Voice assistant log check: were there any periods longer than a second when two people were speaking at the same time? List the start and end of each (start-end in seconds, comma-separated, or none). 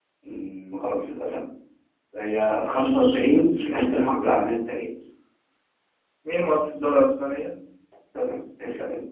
2.5-4.1